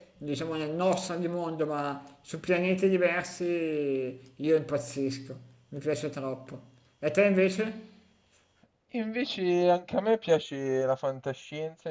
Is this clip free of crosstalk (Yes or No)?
Yes